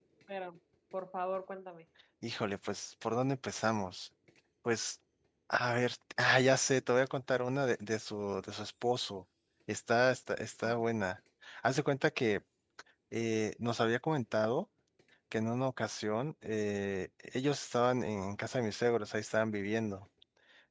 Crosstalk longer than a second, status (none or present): none